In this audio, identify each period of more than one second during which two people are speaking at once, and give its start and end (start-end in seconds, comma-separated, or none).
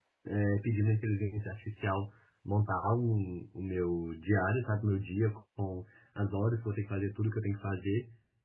none